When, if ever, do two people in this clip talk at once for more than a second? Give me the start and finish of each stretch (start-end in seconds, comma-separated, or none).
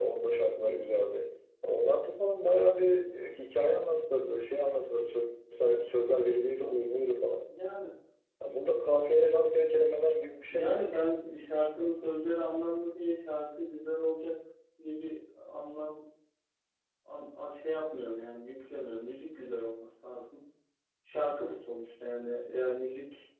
none